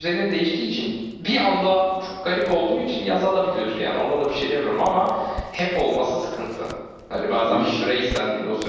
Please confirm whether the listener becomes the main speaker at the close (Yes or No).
No